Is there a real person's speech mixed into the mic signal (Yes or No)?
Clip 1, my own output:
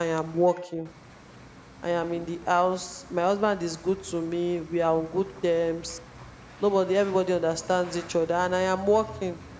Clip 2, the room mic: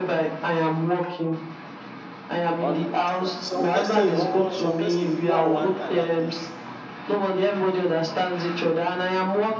Yes